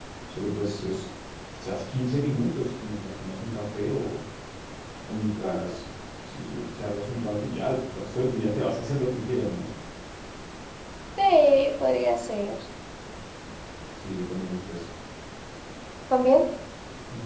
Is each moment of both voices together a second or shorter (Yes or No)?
Yes